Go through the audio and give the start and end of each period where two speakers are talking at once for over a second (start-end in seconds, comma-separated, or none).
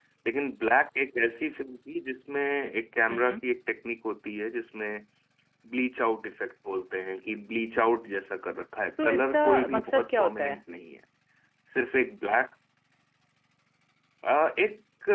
9.0-10.6